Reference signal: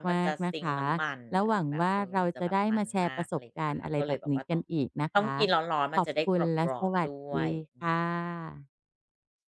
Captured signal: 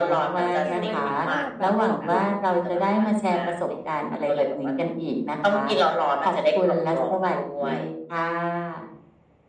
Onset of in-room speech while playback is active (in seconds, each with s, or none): 0.3 s